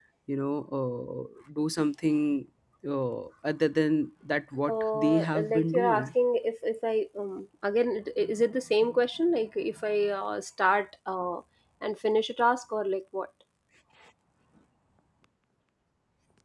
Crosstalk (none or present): present